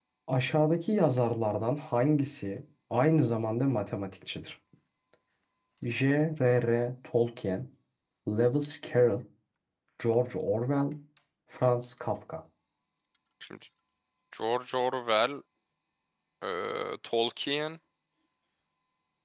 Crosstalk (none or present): none